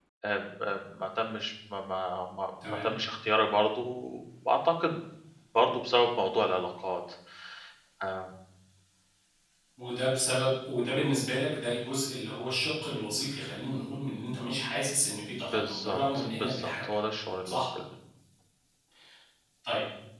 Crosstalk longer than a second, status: present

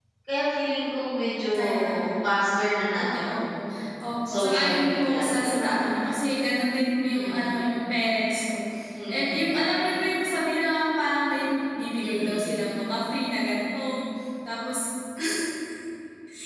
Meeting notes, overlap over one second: present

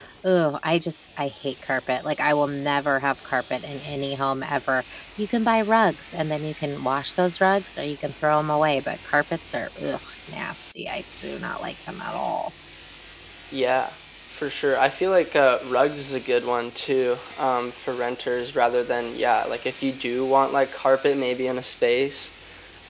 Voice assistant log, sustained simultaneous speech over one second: none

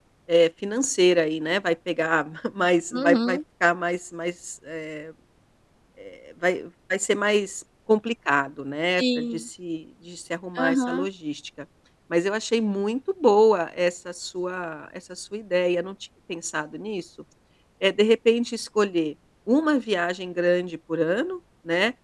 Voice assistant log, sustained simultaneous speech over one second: none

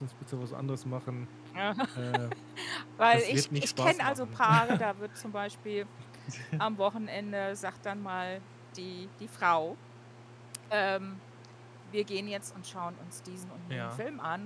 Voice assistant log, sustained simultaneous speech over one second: present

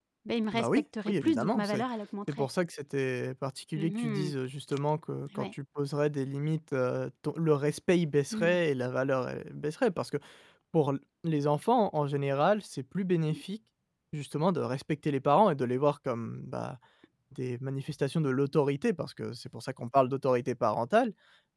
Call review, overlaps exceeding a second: present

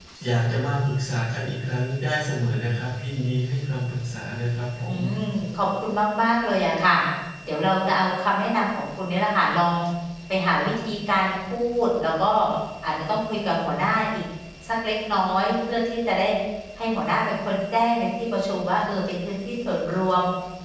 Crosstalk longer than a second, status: none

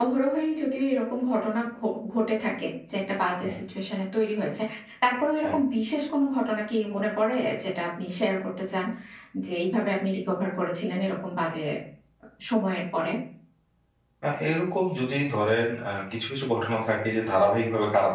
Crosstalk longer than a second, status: none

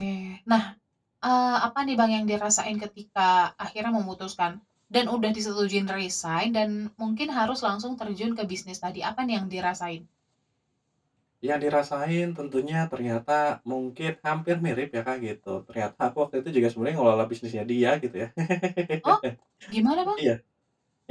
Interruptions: none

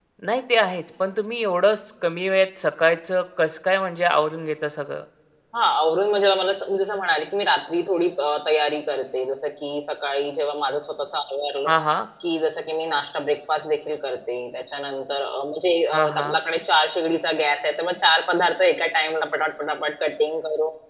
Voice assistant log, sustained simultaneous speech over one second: none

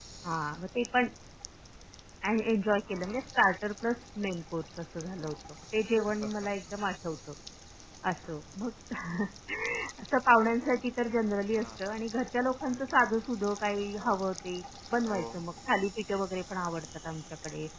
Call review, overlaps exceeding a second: none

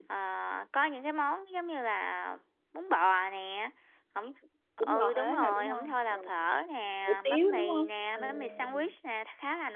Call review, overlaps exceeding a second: present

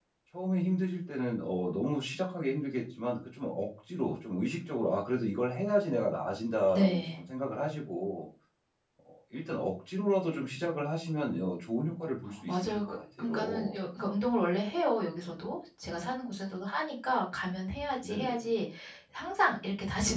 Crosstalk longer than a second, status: present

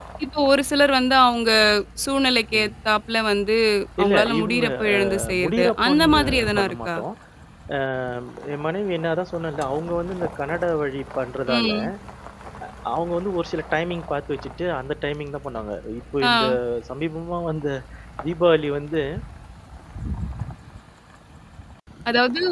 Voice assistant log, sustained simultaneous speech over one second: present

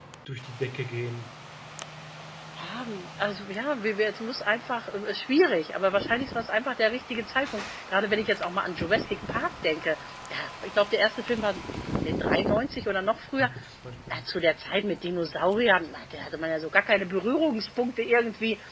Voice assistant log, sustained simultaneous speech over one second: none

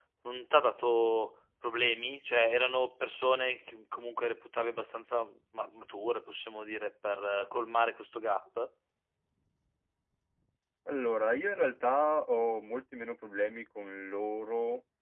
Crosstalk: none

